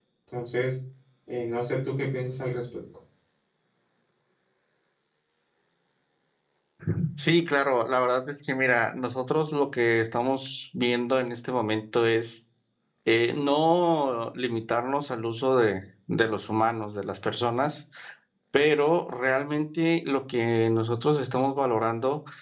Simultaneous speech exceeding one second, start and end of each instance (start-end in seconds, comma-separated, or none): none